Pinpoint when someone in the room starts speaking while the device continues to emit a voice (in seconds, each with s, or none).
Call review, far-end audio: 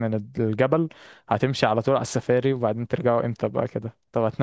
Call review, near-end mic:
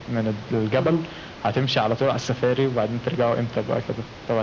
0.8 s